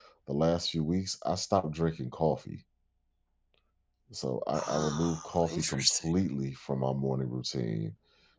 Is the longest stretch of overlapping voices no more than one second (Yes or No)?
No